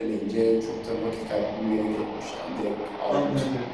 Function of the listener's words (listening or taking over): taking over